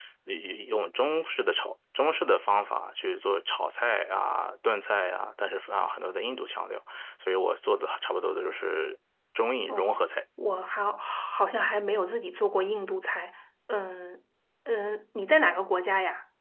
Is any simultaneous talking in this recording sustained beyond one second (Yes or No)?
No